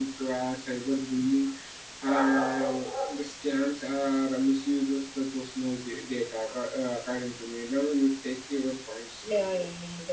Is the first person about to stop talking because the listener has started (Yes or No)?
Yes